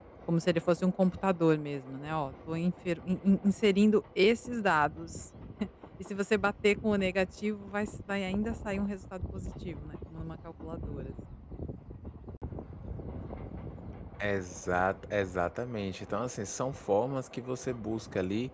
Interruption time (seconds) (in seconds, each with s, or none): none